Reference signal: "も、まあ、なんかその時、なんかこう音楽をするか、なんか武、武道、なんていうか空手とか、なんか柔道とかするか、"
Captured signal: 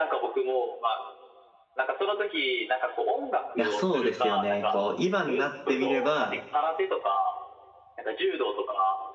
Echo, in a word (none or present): present